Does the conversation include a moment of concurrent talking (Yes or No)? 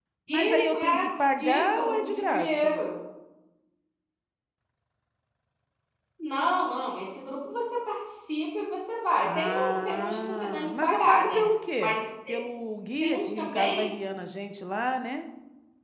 Yes